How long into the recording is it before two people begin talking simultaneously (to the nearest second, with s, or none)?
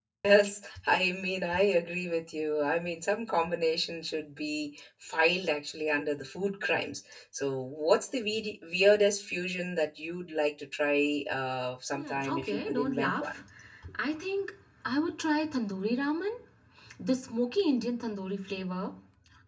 12 s